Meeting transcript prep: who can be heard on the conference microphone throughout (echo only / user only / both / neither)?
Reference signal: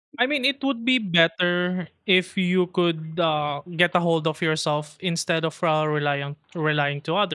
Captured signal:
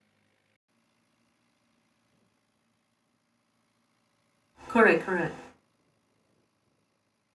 user only